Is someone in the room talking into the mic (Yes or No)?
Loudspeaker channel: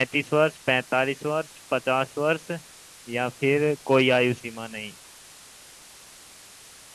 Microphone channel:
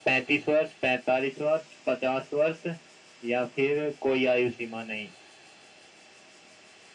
No